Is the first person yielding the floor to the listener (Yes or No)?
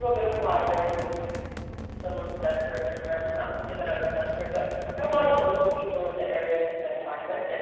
No